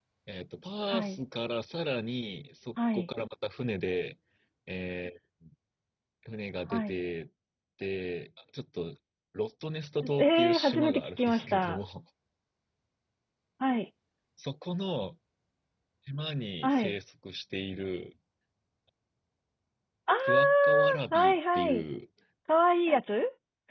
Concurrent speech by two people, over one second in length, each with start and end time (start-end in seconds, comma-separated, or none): 10.2-11.8, 20.2-21.9